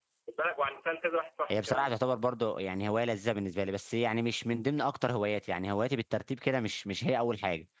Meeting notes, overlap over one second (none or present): none